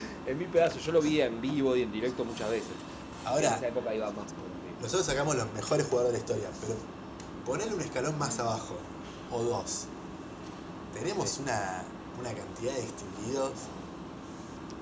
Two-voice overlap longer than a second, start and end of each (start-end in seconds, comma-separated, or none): none